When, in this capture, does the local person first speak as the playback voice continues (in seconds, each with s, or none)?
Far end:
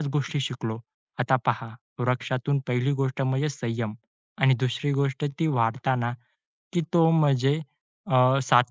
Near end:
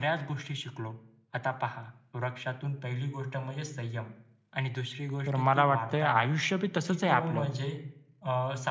5.2 s